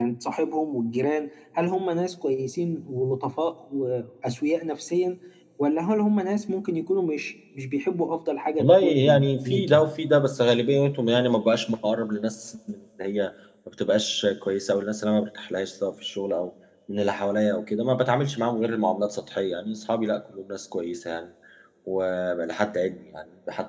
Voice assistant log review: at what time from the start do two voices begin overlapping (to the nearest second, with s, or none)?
9 s